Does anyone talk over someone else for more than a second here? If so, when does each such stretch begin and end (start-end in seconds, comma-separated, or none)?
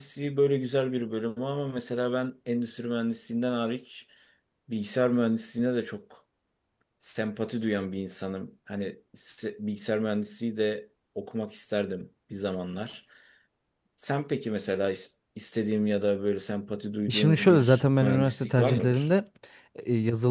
17.1-19.1